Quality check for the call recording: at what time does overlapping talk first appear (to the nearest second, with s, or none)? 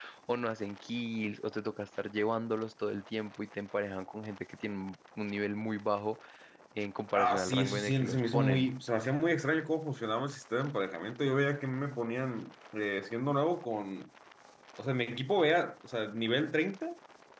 7 s